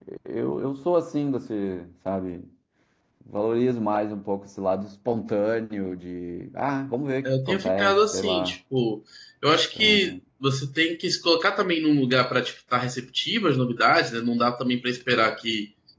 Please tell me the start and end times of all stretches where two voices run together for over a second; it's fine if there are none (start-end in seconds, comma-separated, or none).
7.2-8.6